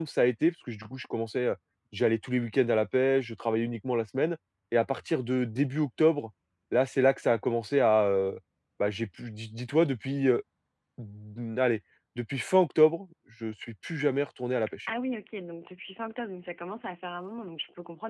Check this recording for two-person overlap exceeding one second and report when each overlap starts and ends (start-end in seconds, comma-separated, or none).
none